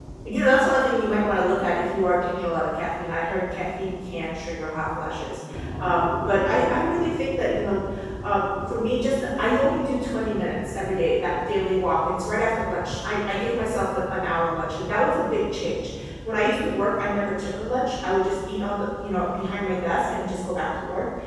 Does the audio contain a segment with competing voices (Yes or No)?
No